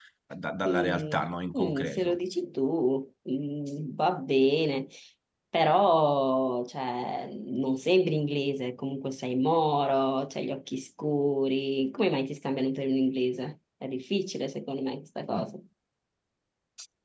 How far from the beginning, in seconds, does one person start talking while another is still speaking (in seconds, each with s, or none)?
0.6 s